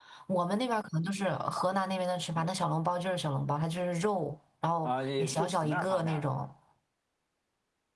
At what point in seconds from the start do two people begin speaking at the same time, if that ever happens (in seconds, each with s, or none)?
4.8 s